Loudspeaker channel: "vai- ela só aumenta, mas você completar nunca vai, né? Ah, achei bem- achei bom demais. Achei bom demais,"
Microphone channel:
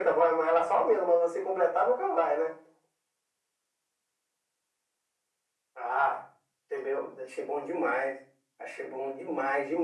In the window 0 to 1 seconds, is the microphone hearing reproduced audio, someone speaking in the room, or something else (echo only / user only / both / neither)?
echo only